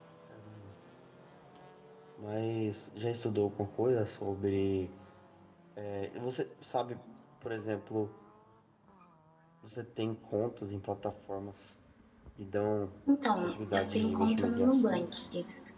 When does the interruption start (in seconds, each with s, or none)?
13.4 s